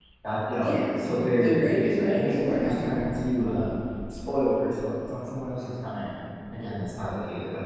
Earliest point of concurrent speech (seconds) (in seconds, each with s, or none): 0.6 s